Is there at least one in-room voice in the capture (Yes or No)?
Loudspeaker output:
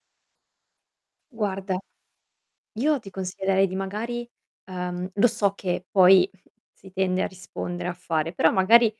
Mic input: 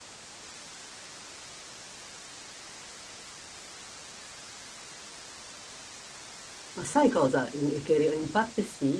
Yes